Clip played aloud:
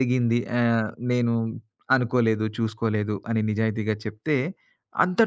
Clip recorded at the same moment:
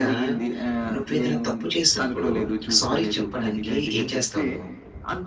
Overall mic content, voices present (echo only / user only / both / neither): both